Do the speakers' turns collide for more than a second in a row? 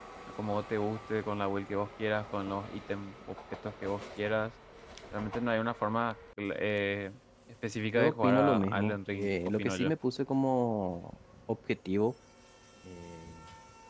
Yes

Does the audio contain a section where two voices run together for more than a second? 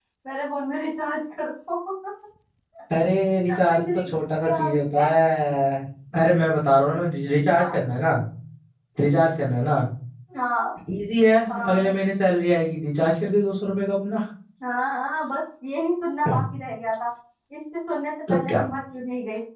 Yes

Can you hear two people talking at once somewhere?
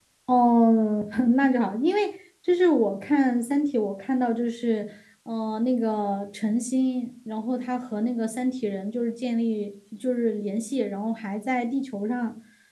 No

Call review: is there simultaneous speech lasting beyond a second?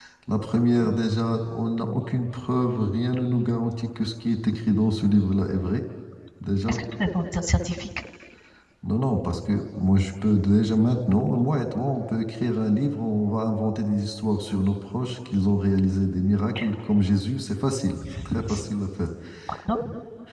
No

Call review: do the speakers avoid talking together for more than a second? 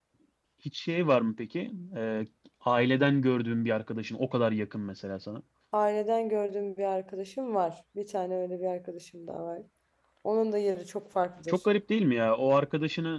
Yes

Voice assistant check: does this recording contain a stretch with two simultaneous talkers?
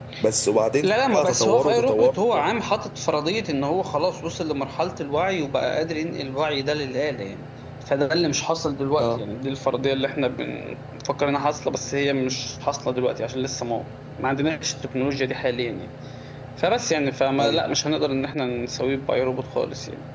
Yes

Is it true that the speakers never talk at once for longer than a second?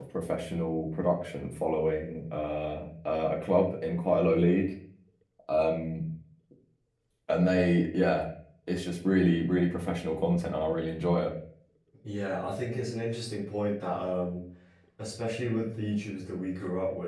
Yes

